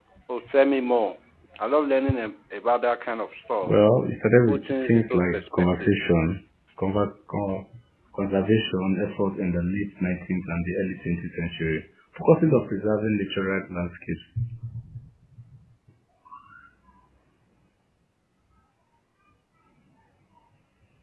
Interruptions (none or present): present